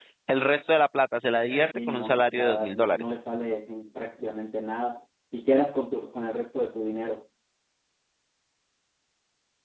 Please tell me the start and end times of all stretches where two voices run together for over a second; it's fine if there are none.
1.9-3.1

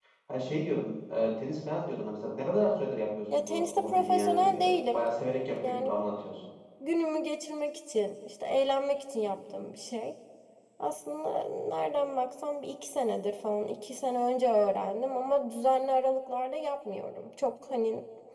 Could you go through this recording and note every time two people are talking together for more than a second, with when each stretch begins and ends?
3.4-5.0

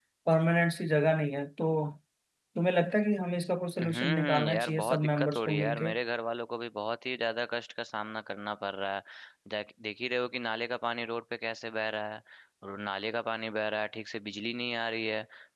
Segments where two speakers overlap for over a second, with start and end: 3.8-5.9

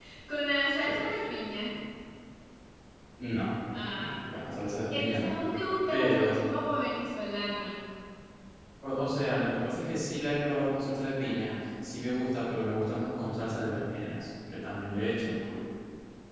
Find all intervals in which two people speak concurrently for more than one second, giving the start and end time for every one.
none

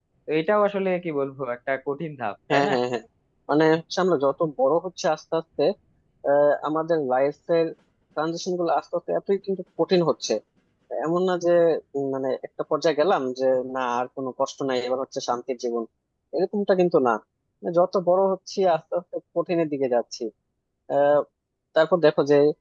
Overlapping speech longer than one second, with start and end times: none

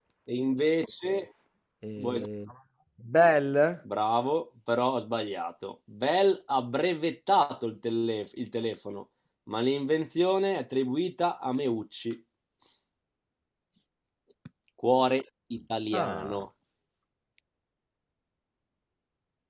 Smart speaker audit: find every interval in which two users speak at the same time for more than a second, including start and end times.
none

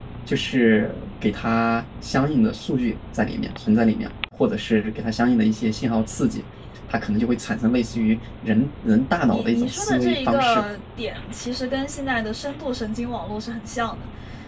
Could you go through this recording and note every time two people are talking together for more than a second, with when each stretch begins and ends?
9.3-10.6

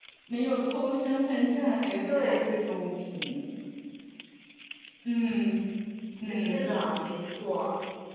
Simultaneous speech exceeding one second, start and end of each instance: none

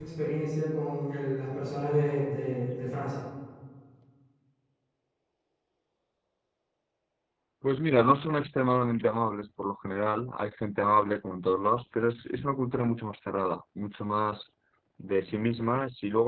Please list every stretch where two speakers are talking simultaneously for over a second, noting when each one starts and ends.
none

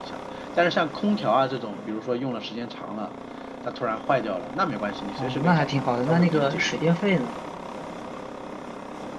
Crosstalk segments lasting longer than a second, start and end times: 5.2-6.9

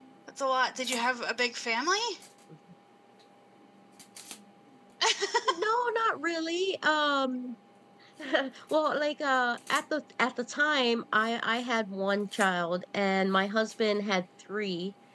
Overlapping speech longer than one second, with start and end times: none

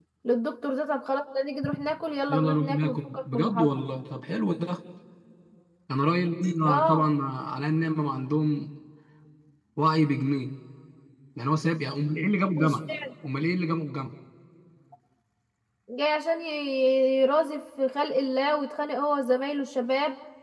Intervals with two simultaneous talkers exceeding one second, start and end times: 2.3-3.7

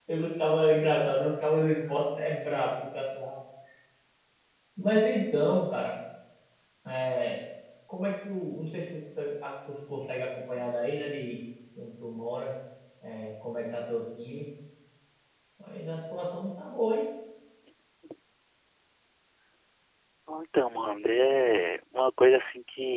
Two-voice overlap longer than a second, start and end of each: none

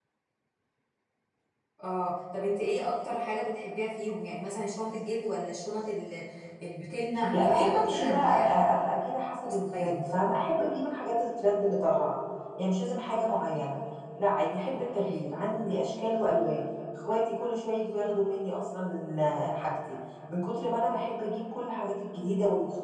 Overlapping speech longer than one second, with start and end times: 7.3-8.6

